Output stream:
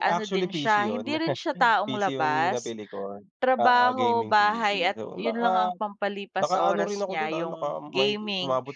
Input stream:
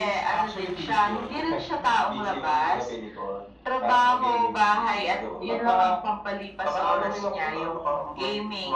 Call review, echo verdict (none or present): present